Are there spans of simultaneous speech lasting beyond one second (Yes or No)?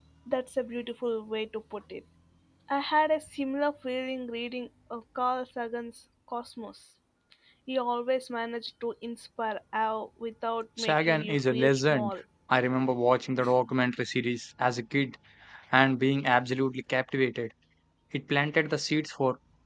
Yes